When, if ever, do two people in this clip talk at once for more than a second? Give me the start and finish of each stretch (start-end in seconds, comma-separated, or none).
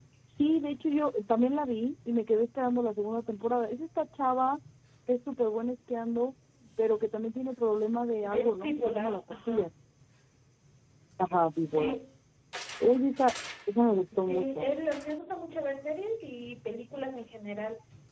8.3-9.7